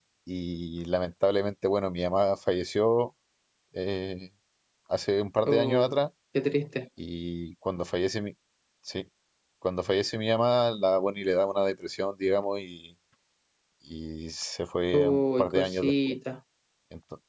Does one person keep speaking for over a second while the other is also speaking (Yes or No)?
Yes